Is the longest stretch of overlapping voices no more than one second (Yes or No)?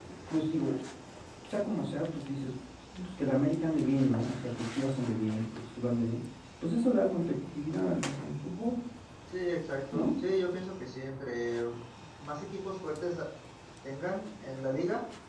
Yes